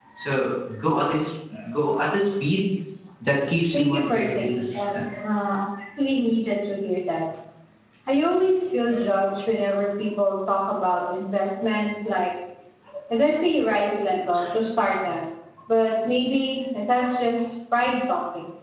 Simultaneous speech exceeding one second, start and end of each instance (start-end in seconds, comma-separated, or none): 3.7-5.0